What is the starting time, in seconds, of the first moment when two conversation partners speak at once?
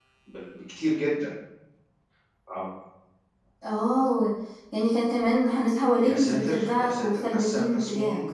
6 s

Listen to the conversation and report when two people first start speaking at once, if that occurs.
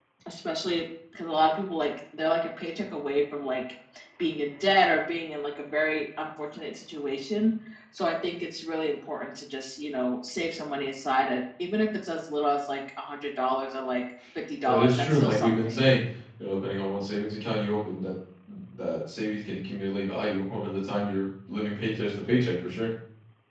15 s

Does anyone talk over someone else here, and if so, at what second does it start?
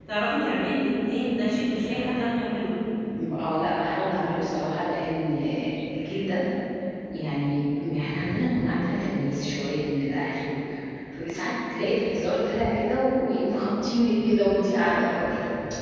none

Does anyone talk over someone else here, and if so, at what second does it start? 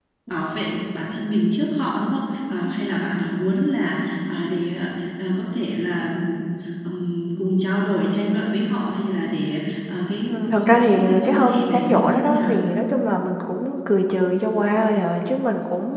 10 s

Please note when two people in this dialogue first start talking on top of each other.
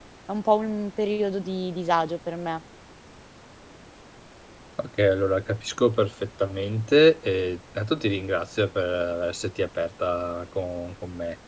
none

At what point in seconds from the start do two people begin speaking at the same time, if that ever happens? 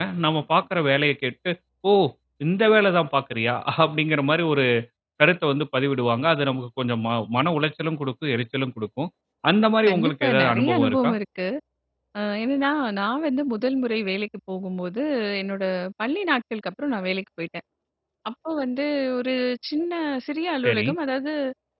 10 s

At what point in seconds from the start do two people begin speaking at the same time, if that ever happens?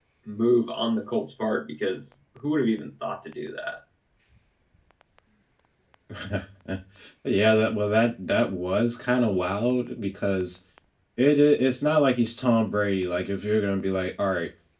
none

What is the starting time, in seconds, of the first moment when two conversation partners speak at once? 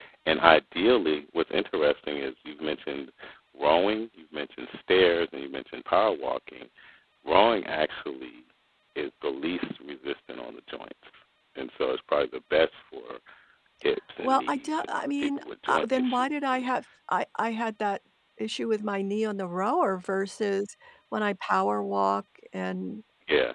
14 s

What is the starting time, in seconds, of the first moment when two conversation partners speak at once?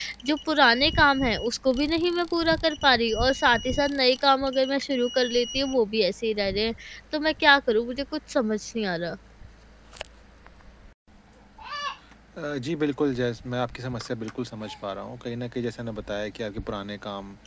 none

